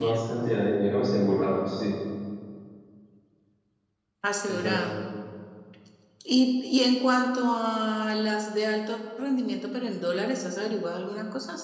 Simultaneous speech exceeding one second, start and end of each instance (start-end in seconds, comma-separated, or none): none